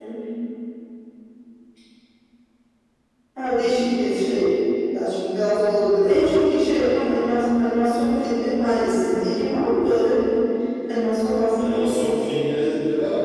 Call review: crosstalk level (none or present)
none